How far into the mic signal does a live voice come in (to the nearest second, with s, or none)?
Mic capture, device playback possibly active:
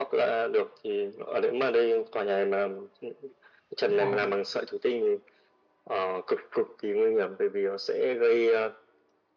4 s